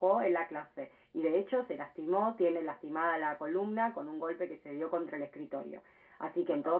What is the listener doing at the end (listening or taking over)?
listening